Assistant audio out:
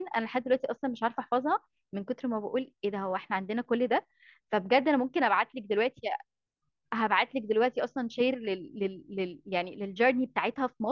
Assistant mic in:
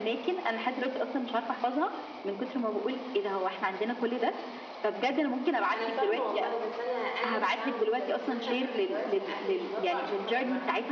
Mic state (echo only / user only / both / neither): both